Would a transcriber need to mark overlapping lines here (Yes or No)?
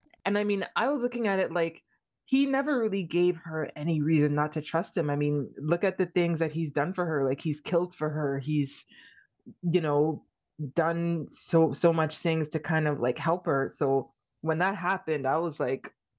No